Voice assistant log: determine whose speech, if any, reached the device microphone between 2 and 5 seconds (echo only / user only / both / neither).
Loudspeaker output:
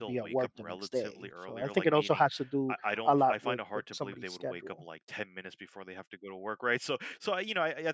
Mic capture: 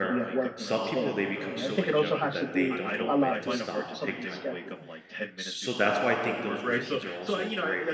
both